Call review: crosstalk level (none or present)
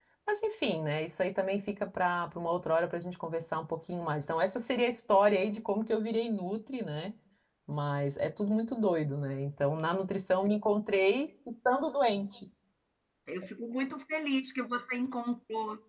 none